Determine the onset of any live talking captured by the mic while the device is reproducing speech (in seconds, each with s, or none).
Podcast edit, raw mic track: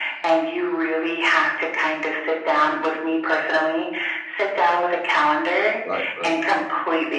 5.8 s